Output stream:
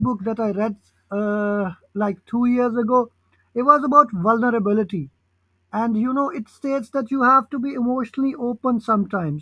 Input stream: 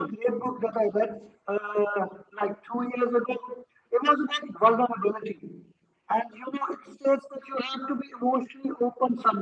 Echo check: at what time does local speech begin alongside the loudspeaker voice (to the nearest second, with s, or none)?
none